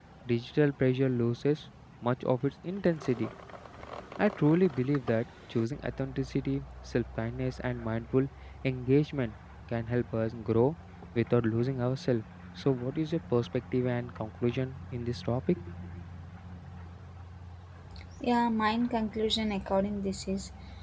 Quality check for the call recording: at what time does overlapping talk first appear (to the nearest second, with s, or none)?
none